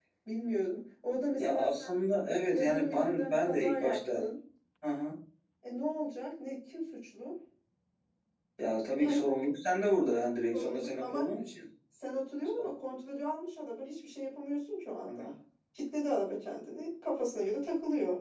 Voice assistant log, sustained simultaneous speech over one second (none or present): present